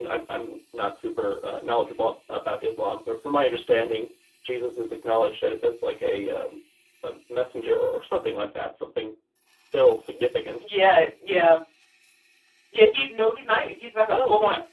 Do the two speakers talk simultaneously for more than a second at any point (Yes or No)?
No